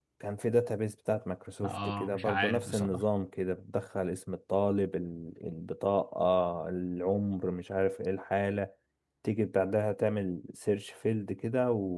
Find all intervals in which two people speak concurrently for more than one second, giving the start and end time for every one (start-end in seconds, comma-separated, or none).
1.6-3.0